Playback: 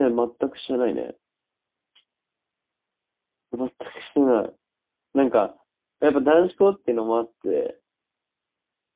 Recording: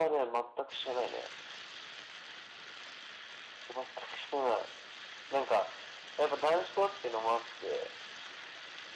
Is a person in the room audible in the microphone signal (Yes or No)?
No